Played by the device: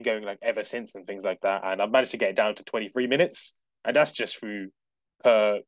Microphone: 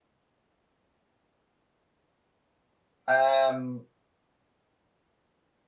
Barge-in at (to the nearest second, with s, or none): 3 s